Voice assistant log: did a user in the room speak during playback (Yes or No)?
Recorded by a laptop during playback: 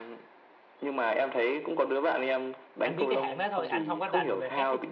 Yes